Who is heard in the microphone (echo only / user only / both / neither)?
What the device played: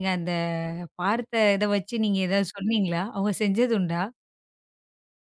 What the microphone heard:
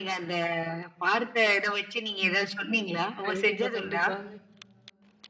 both